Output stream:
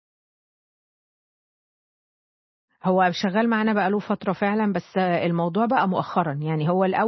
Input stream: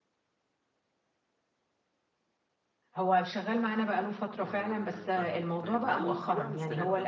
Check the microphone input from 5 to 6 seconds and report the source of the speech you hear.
both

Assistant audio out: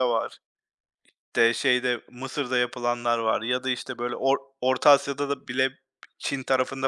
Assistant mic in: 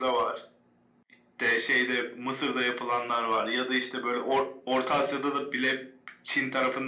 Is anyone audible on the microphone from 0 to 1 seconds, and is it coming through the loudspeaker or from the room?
echo only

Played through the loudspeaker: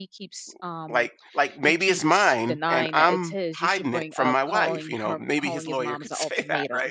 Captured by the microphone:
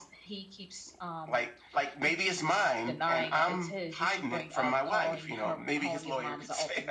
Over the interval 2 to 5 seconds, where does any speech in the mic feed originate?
echo only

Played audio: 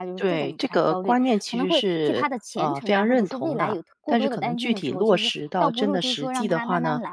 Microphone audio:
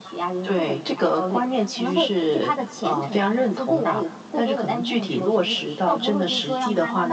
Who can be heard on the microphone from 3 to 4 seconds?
echo only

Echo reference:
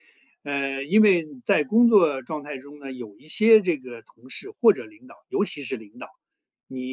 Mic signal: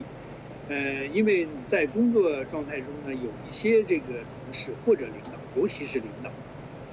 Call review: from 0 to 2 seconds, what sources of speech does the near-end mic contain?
echo only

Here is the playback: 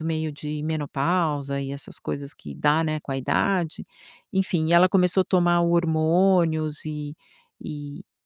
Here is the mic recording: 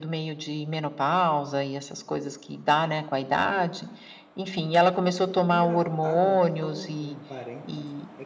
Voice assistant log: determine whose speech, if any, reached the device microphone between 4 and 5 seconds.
echo only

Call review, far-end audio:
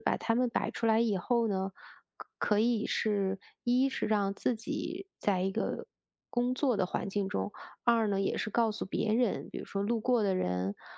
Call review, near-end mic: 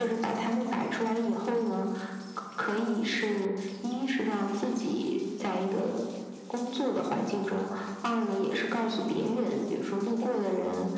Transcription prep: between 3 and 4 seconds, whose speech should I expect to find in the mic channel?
echo only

